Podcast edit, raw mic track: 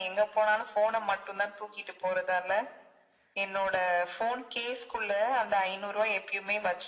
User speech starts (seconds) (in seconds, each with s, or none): none